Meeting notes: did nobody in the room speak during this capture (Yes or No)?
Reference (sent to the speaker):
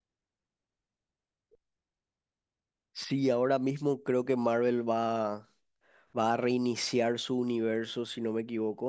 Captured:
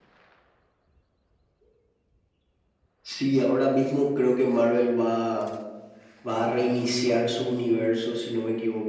Yes